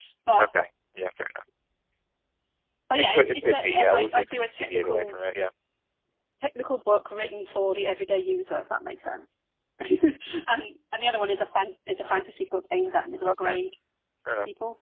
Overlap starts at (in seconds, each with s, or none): 2.9 s